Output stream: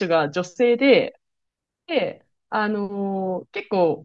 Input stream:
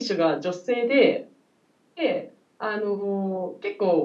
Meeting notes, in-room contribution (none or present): none